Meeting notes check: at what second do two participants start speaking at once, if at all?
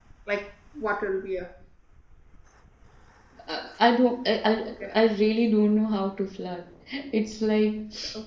none

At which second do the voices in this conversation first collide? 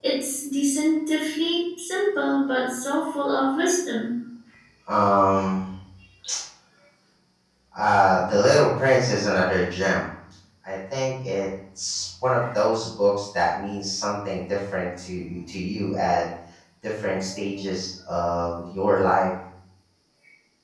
none

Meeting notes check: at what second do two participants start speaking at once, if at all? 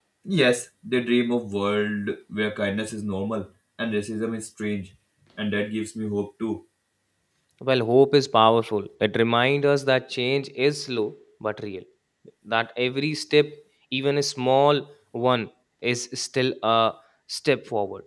none

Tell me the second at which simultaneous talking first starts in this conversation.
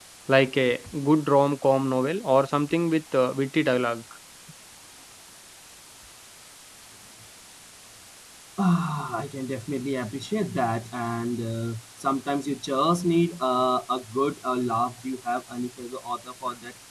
none

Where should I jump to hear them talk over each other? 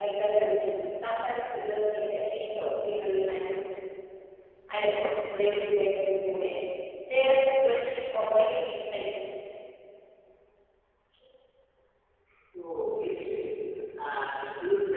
none

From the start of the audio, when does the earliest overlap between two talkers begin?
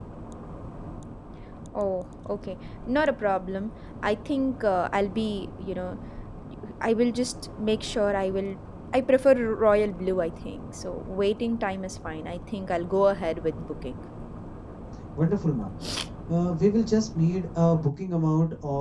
none

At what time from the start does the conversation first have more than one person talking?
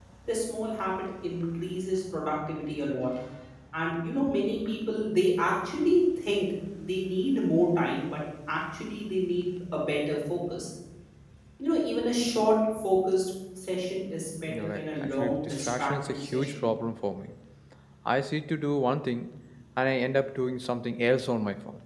14.5 s

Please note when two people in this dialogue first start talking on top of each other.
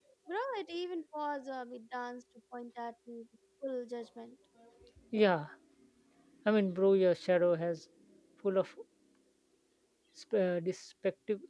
none

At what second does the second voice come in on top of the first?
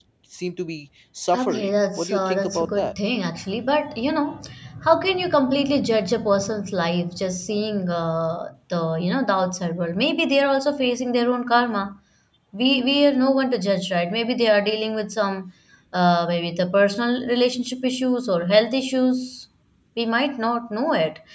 1.3 s

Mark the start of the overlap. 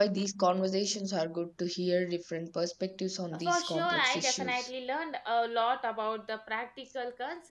3.3 s

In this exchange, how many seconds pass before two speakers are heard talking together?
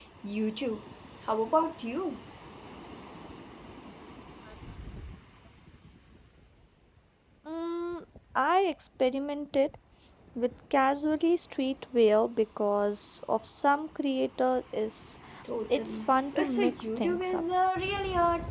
15.8 s

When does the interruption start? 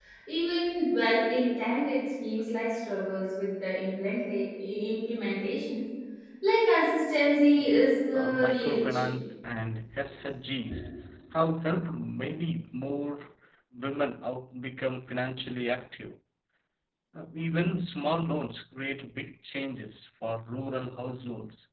7.6 s

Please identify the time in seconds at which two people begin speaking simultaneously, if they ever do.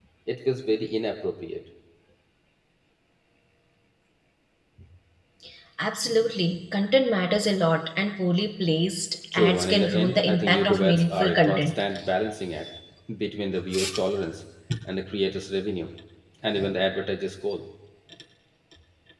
9.3 s

